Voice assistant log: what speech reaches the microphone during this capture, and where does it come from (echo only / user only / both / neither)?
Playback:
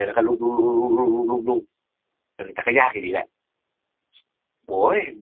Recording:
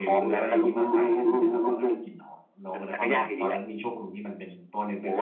both